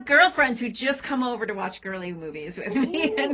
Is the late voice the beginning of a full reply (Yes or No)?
Yes